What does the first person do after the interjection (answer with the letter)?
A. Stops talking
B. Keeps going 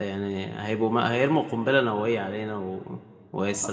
B